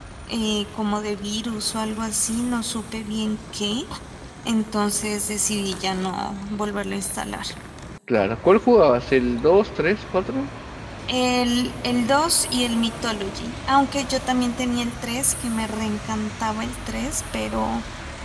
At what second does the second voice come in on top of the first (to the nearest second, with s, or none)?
none